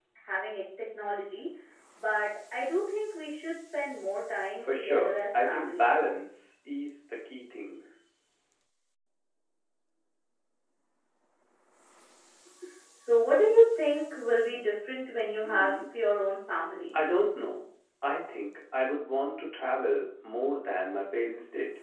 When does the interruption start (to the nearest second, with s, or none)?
5 s